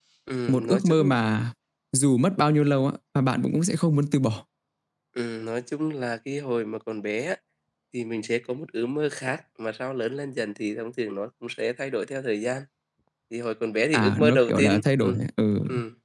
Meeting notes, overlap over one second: present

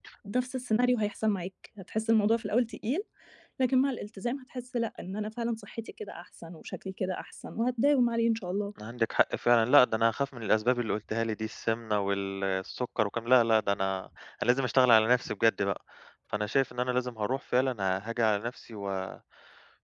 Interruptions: none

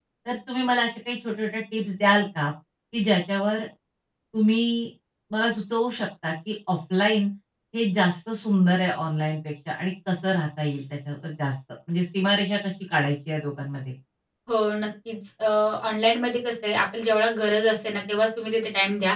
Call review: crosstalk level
none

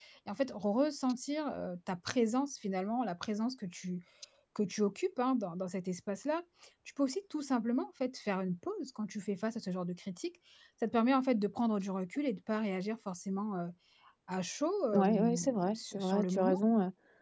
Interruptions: present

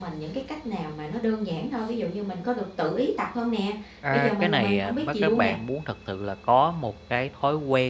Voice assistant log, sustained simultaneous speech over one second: present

